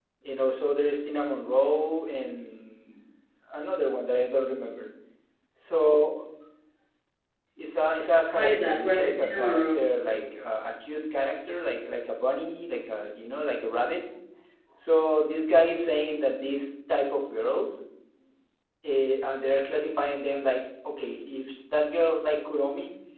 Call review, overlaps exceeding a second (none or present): present